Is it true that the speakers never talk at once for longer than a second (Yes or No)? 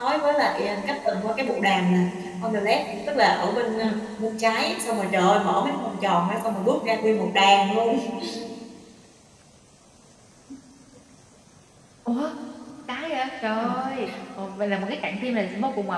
Yes